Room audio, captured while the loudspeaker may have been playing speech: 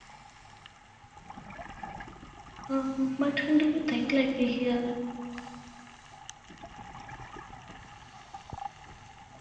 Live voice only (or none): Um, but do you think, like here,